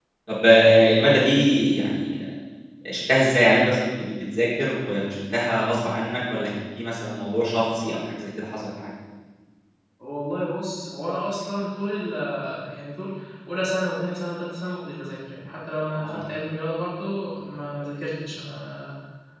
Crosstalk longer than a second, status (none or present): none